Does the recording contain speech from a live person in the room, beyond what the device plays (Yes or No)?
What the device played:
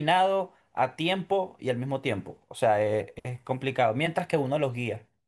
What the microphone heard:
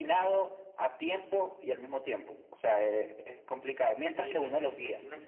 Yes